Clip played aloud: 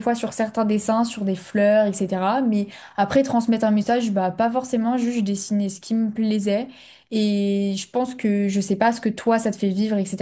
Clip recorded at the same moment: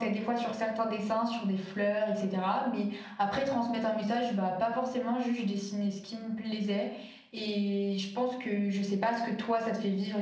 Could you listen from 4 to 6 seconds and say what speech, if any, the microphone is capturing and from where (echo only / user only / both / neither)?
echo only